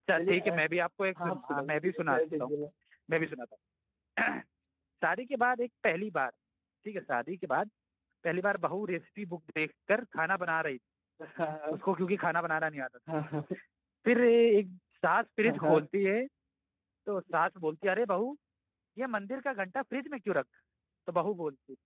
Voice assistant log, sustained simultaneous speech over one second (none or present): present